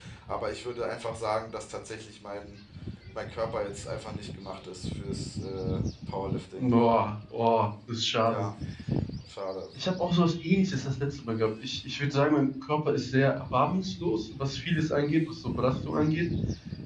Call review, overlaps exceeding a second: none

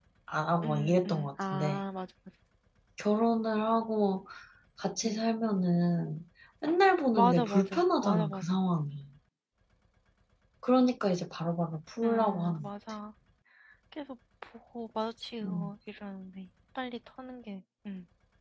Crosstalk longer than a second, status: present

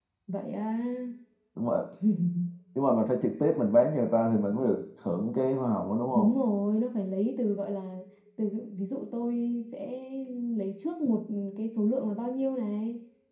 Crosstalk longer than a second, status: none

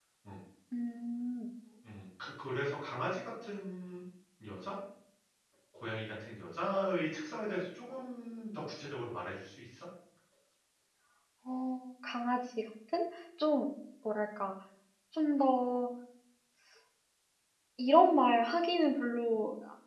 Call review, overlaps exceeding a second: none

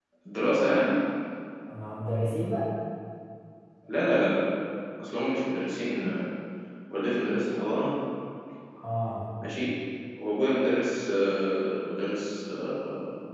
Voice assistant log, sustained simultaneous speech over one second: none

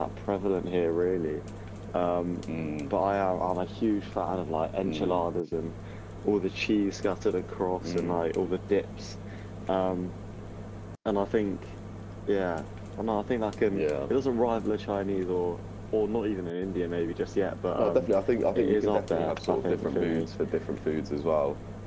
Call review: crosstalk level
present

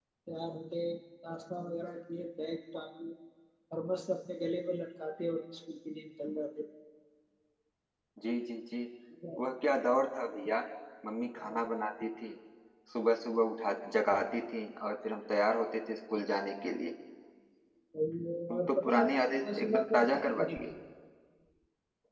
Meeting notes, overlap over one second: present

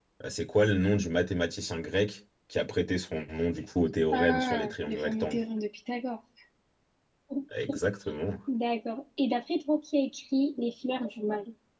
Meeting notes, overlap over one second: present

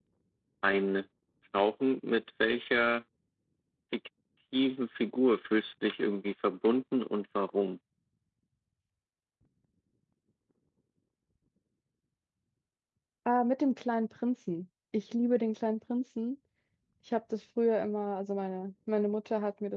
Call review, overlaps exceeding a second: none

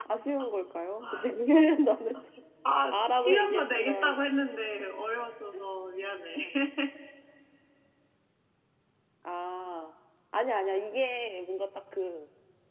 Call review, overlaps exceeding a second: present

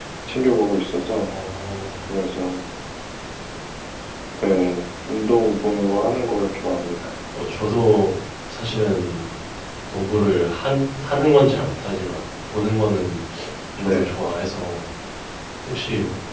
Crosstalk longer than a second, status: none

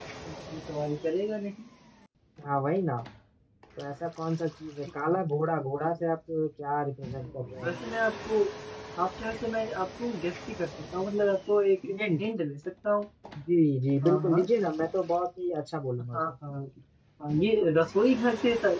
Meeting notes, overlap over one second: none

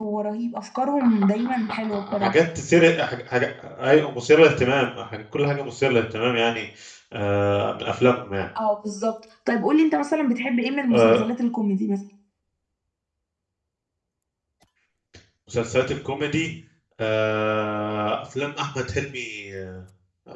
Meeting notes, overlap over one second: present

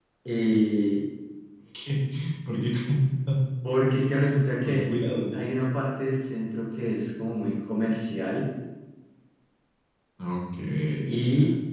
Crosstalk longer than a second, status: none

